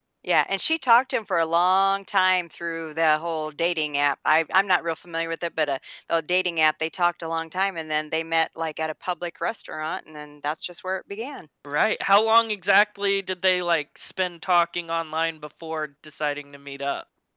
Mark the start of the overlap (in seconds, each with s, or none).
none